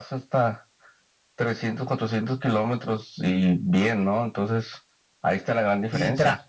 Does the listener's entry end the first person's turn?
Yes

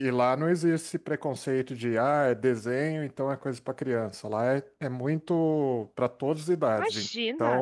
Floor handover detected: Yes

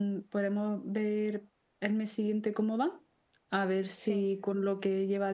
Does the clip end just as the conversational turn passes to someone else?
No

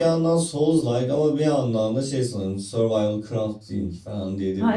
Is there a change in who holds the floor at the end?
Yes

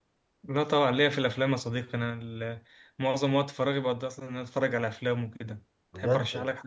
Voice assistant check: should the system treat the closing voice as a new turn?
Yes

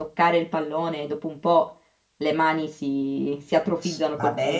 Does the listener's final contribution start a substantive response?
Yes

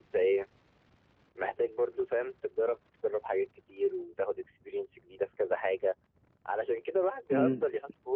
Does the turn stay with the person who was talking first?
Yes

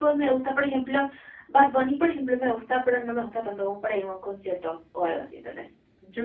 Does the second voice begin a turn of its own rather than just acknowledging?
Yes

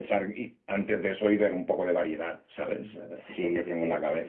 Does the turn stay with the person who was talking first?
No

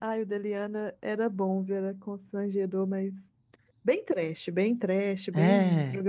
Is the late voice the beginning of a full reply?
No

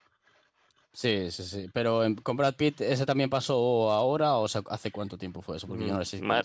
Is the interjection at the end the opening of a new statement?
Yes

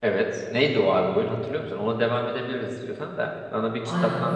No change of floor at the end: No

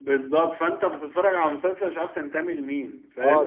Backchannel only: No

